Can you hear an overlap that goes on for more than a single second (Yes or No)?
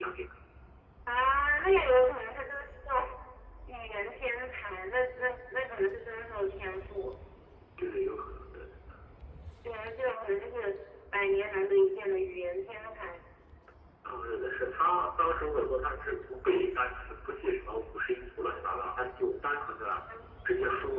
No